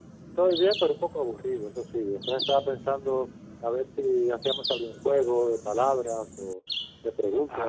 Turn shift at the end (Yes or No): Yes